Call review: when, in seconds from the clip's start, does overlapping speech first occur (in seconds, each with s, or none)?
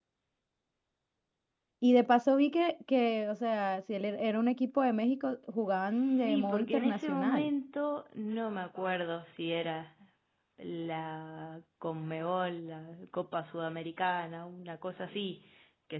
5.9 s